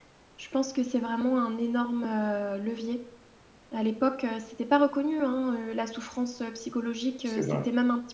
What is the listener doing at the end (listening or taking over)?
listening